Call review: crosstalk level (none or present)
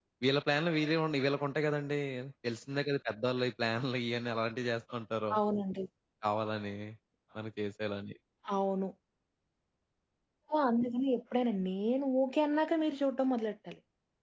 none